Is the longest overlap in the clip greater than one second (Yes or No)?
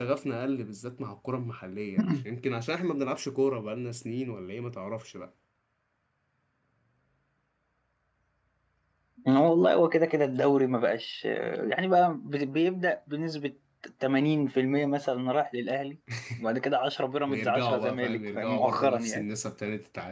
Yes